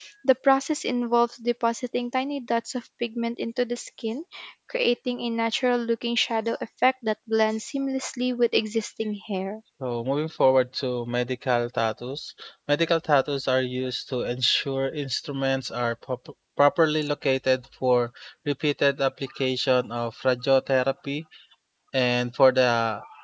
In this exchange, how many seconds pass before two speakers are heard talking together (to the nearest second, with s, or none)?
none